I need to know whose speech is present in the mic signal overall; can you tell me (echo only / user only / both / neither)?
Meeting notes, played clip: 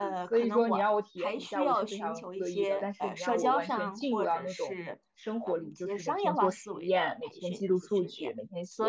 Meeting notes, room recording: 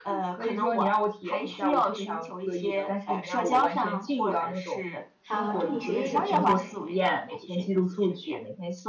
both